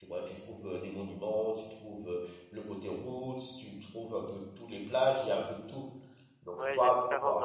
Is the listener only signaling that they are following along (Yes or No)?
No